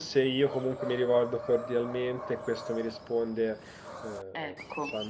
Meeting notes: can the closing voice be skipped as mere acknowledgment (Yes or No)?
Yes